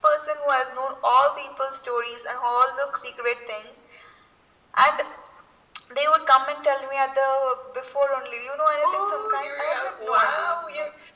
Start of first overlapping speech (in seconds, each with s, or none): 8.8 s